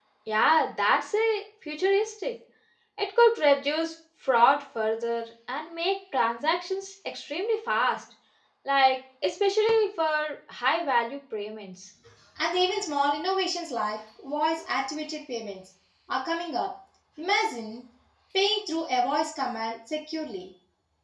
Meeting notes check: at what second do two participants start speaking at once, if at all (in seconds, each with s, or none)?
none